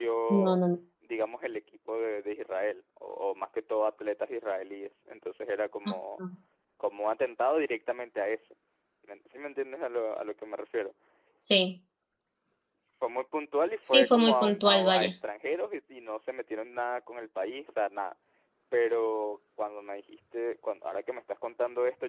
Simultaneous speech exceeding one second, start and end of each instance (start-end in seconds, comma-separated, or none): 13.9-15.1